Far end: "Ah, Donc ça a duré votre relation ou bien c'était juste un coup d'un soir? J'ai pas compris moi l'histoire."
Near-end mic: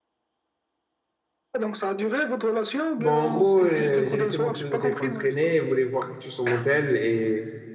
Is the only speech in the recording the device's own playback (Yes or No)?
No